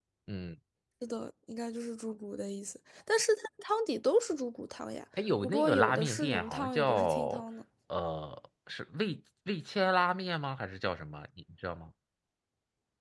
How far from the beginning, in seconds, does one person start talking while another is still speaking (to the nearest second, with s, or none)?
5 s